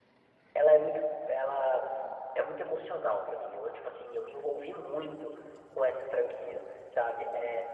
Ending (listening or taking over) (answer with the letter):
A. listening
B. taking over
A